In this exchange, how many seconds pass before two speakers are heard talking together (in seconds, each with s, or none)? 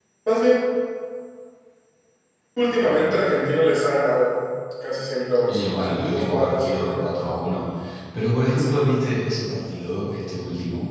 5.5 s